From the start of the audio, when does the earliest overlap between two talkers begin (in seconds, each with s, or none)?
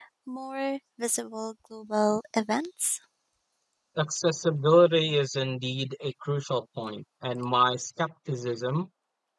none